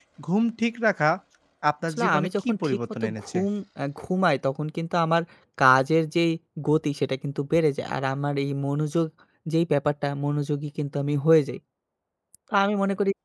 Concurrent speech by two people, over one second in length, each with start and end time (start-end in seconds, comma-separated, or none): 1.9-3.4